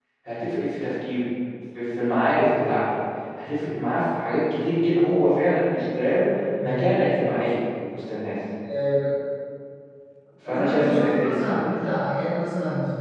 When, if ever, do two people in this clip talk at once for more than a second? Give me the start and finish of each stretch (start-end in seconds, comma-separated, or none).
10.5-11.8